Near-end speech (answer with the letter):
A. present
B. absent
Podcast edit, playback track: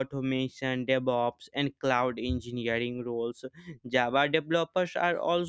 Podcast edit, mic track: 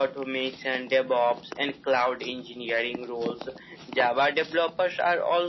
B